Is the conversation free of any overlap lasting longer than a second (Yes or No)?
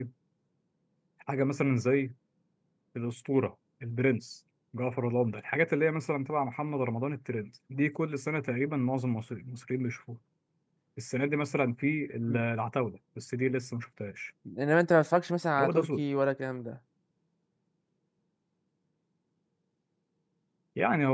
Yes